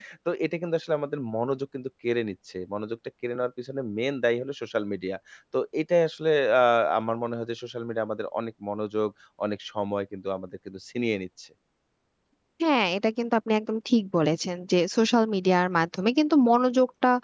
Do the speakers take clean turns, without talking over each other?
Yes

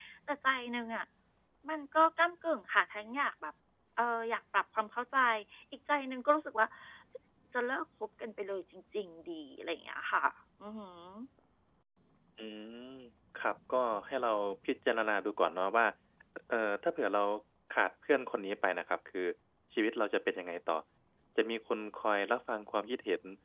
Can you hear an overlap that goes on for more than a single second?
No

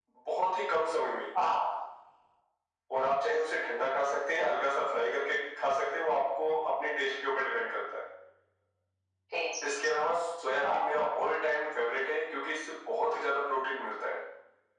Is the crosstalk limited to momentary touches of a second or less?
Yes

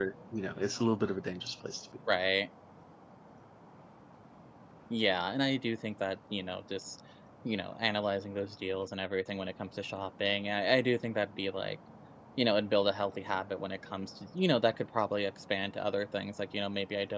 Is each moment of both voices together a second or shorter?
Yes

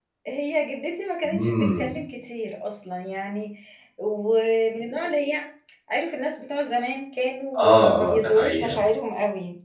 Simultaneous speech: Yes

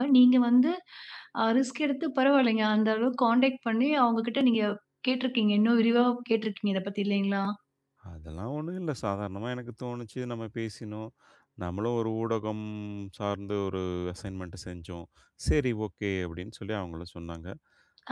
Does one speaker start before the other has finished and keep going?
No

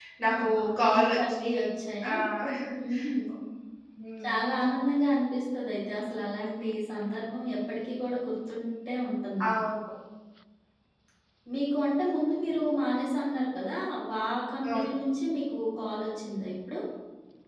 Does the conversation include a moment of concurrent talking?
Yes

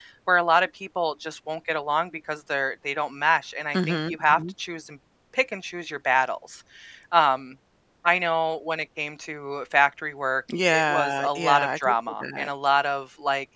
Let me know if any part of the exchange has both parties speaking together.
Yes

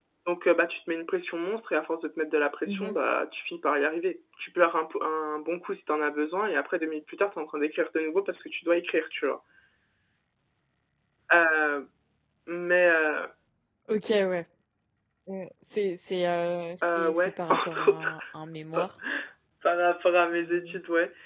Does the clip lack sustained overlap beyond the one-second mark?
No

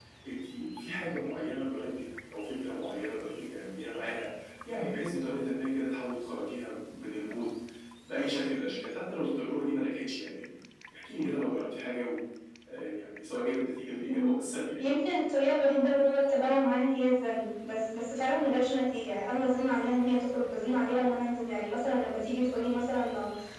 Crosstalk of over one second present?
No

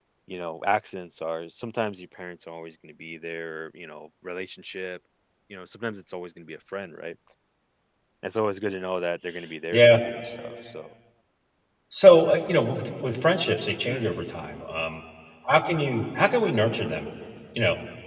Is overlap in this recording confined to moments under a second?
Yes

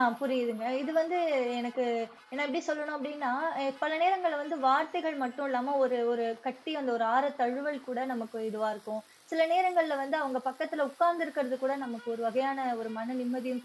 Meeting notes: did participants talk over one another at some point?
No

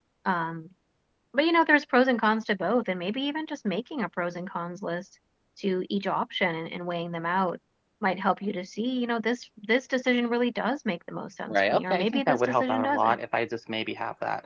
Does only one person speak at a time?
No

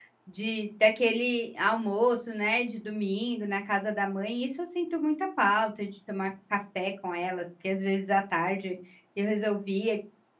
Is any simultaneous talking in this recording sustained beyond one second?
No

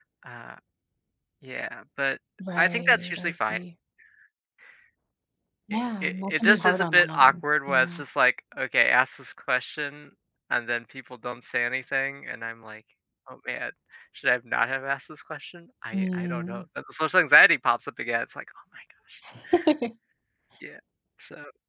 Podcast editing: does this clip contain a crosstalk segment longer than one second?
Yes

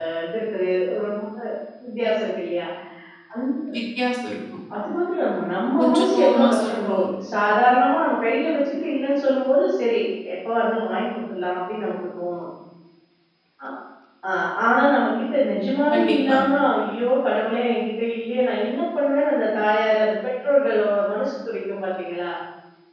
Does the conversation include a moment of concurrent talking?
Yes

